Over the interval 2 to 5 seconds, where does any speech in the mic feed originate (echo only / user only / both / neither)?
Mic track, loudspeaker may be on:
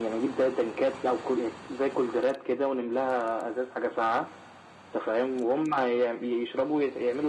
echo only